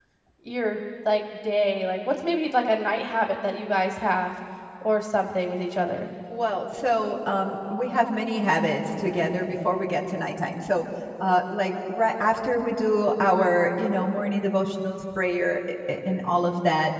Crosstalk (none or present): none